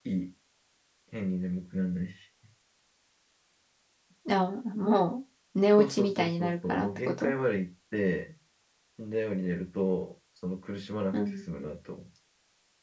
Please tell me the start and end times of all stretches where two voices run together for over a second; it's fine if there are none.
5.8-7.3

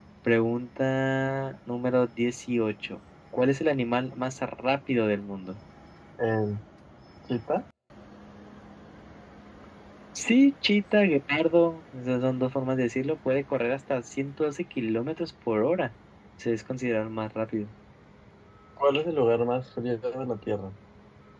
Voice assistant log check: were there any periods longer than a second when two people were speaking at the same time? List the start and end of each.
none

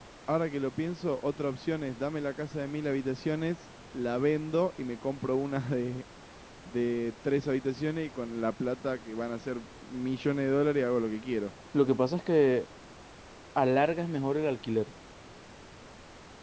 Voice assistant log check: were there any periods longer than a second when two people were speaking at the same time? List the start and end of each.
none

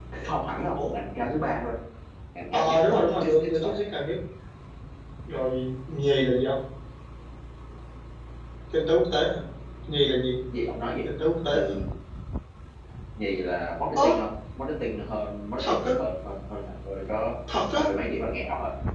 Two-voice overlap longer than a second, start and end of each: 2.5-3.8

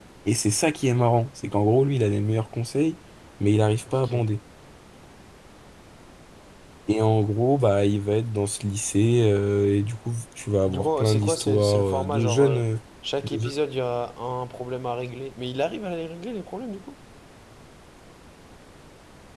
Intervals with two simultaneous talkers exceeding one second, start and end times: 10.7-12.6

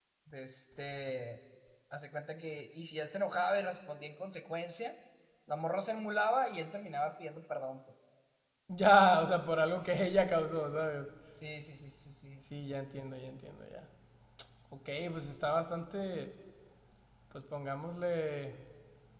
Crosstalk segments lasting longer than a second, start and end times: none

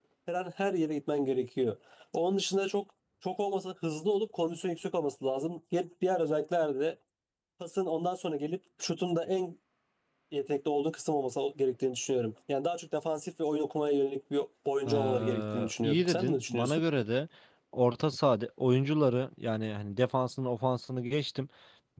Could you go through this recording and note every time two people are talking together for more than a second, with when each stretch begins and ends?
14.9-16.8

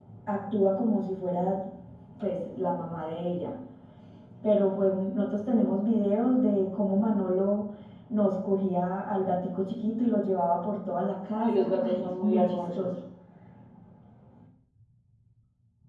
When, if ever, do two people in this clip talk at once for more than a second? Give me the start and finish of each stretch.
11.3-12.9

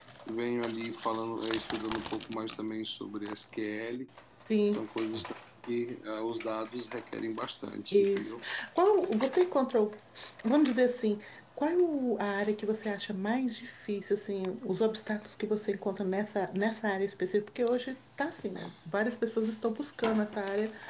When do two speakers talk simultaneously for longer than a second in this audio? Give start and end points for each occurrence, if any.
none

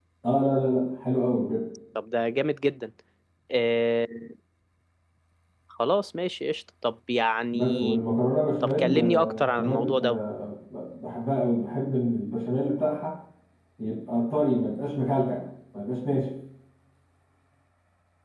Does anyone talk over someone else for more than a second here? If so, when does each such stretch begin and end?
8.6-10.2

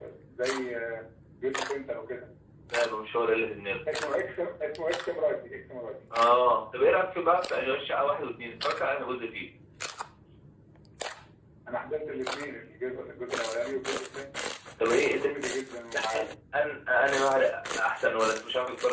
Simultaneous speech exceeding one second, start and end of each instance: none

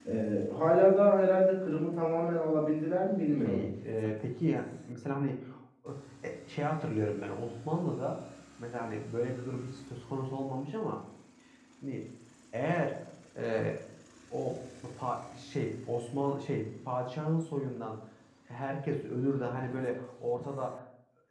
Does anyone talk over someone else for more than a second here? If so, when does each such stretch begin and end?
none

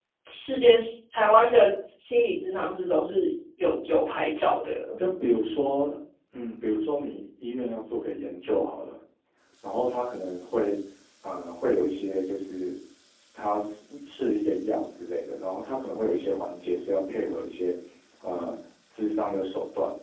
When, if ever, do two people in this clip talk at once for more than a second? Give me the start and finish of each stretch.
none

